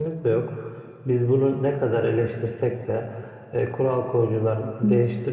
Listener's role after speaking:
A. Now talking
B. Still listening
B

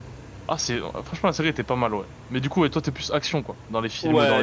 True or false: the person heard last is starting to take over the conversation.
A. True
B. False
A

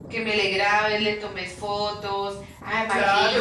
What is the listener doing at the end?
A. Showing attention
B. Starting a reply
B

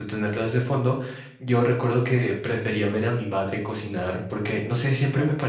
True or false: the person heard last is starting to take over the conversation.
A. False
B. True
A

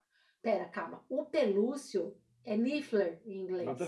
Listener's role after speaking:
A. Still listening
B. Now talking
B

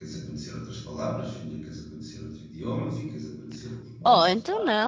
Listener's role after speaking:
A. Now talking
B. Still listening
A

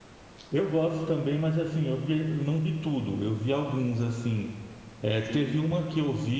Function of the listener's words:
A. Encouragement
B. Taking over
A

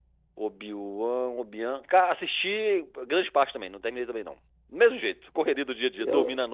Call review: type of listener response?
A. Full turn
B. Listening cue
A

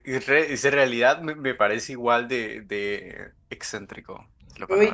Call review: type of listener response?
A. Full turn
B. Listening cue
A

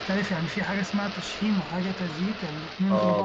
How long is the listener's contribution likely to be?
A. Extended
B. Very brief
A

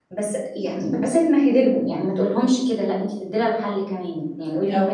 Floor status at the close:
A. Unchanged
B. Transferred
A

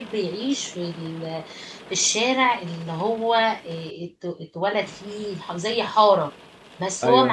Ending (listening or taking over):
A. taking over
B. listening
B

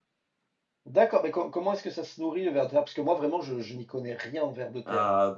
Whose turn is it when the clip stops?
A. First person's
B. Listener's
B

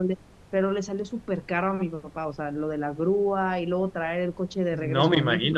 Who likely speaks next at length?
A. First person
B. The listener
B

